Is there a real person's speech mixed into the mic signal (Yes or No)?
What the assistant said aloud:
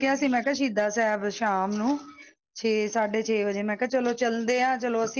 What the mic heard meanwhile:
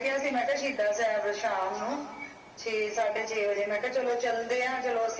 No